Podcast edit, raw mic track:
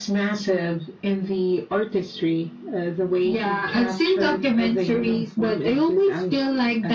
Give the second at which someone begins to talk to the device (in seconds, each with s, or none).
none